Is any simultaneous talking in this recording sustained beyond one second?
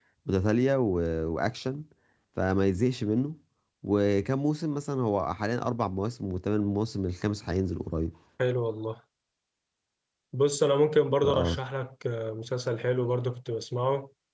No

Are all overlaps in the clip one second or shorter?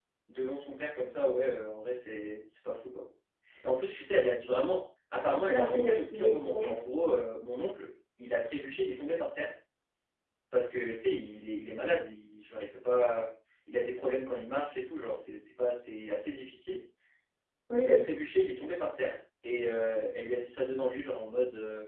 No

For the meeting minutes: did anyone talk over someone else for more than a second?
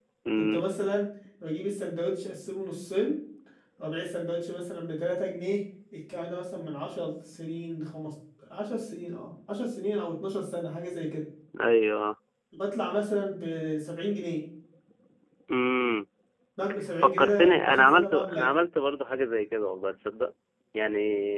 Yes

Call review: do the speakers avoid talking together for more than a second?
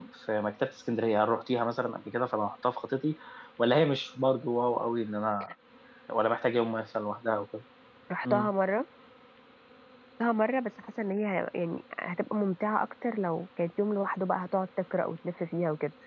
Yes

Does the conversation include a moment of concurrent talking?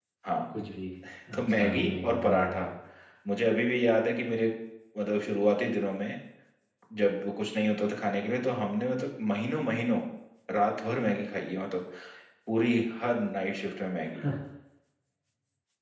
Yes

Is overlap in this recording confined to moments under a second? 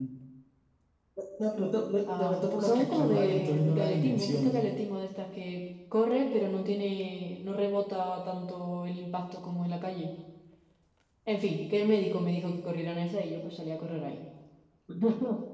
No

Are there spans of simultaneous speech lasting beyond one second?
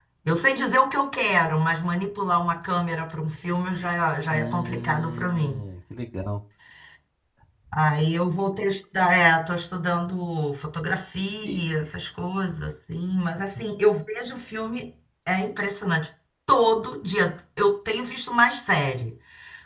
Yes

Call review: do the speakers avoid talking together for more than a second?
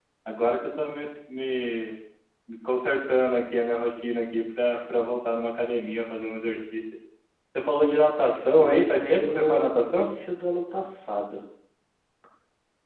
No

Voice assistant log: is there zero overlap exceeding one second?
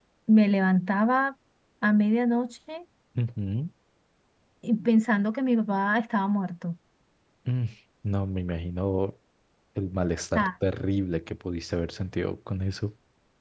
Yes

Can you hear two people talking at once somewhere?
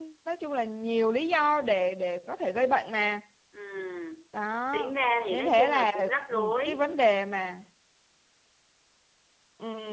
Yes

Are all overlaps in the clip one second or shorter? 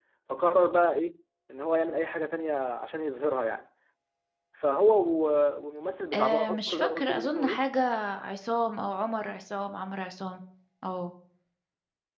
No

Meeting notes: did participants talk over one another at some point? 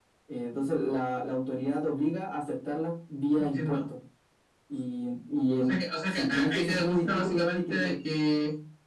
Yes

